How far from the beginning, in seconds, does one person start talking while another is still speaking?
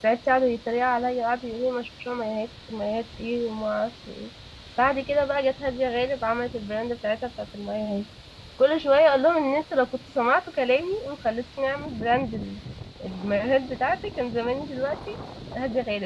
none

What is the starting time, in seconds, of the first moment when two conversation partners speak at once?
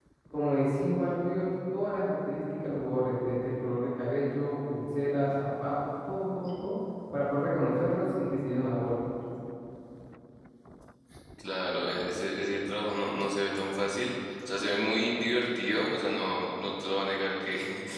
none

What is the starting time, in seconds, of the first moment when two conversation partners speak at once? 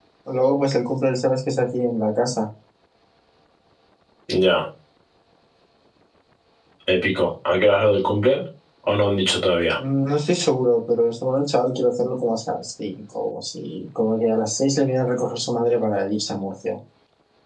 none

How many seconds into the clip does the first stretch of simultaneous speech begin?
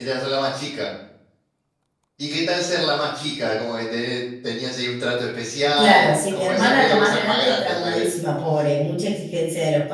5.8 s

